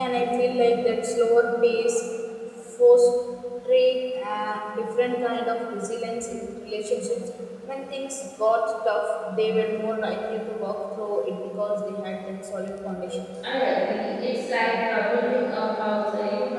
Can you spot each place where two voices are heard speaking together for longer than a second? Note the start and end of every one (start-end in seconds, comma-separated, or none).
none